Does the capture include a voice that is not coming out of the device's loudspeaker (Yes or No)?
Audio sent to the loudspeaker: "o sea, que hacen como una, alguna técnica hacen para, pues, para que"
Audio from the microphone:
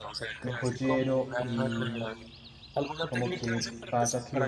Yes